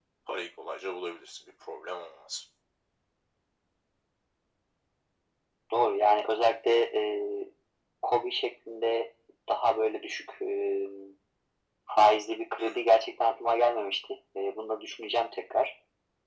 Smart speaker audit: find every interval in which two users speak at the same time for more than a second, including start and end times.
none

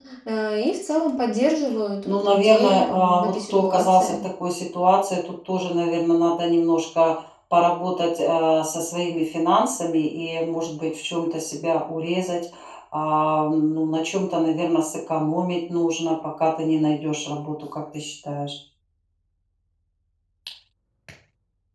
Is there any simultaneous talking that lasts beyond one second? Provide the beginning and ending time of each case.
2.0-4.2

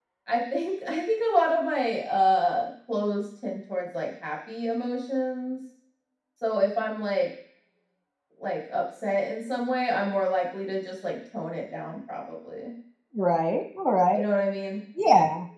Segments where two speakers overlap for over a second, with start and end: none

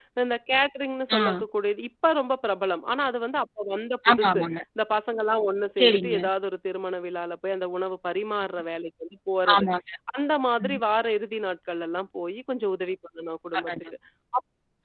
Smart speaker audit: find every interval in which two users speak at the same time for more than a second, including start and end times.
none

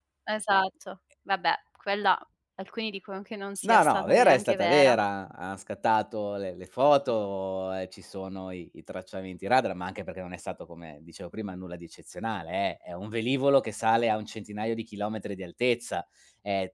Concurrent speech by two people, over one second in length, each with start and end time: 3.6-5.0

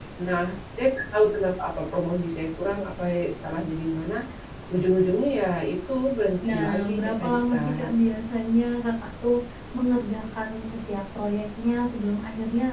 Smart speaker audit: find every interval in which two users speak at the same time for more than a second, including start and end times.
6.5-7.9

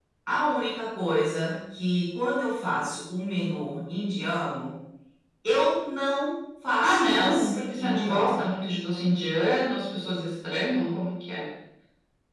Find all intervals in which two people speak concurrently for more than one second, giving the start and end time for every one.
6.8-8.5

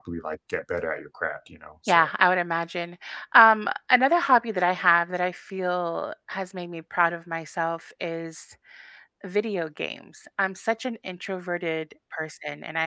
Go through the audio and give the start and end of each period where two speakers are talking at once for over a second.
none

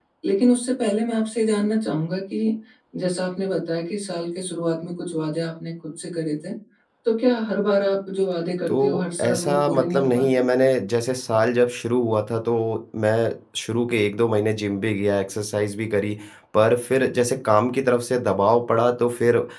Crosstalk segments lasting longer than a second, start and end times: 9.2-10.4

